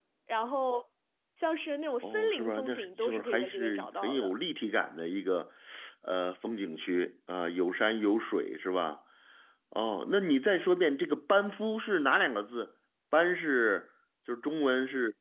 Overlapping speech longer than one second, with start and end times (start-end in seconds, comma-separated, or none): 2.0-4.3